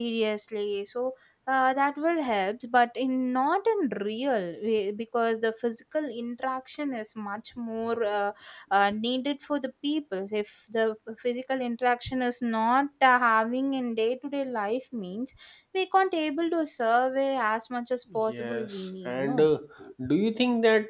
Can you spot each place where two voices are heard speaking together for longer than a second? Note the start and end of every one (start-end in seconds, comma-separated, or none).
18.1-19.5